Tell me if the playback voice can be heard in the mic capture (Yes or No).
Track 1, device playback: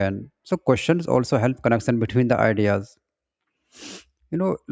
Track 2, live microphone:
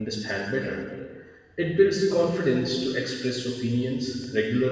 No